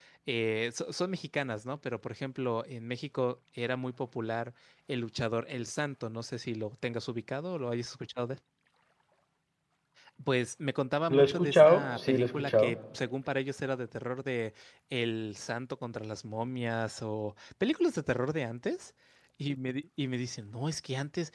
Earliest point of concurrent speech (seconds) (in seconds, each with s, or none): 11.1 s